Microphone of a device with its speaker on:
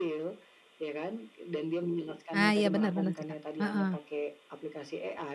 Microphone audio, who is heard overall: both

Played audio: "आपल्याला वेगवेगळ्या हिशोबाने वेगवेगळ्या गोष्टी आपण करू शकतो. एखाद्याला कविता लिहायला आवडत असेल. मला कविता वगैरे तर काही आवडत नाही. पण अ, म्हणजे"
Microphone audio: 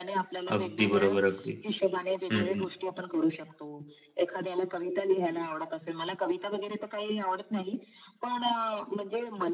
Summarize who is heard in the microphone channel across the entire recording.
both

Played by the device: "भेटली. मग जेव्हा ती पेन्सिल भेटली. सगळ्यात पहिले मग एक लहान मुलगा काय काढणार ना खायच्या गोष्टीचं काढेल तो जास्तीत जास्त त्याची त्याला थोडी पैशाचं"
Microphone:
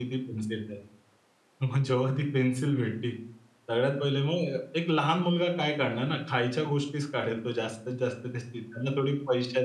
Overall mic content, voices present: echo only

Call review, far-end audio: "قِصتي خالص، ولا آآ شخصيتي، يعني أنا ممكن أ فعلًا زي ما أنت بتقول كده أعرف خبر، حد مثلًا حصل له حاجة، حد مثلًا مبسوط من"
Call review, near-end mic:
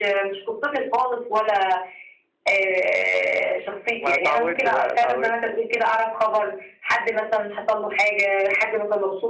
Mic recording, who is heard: both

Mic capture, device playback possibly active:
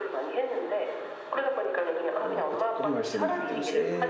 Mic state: both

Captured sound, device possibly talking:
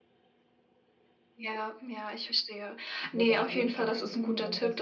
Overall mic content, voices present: both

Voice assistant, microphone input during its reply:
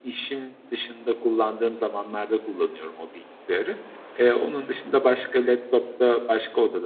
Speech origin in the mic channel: user only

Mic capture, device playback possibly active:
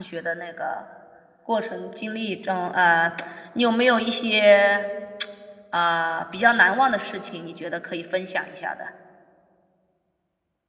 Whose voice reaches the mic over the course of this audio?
user only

